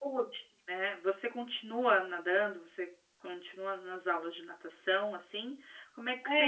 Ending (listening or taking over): listening